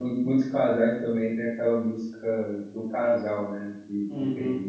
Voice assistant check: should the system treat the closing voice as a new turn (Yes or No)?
Yes